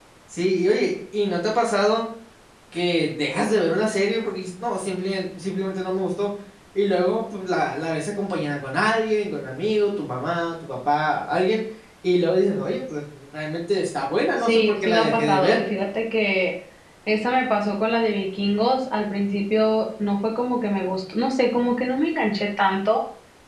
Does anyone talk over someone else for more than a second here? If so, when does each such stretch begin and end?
14.4-15.6

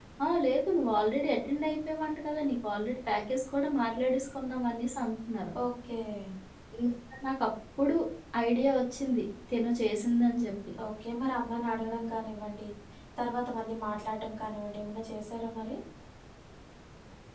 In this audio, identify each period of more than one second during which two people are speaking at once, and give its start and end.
none

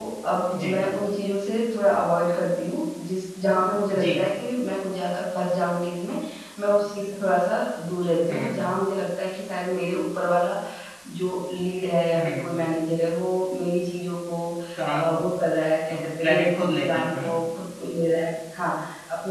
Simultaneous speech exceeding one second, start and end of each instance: 15.9-17.3

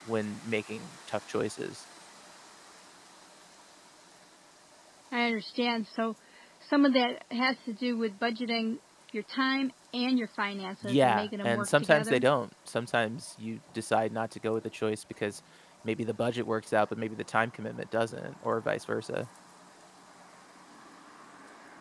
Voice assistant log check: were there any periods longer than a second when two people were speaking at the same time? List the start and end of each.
10.8-12.2

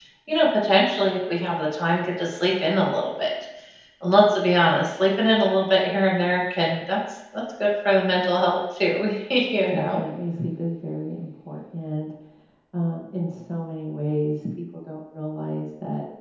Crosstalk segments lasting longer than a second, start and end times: none

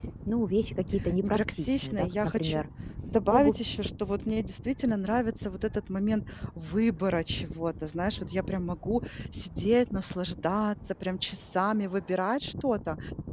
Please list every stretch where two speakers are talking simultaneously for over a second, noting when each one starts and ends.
1.2-2.6

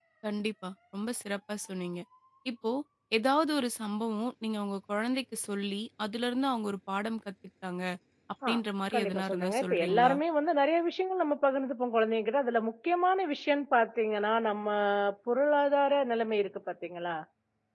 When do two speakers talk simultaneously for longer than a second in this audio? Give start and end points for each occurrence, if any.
8.9-10.2

